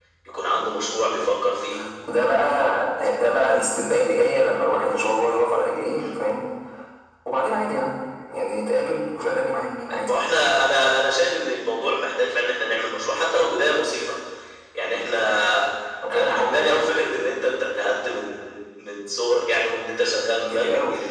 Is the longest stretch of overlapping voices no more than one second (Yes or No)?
Yes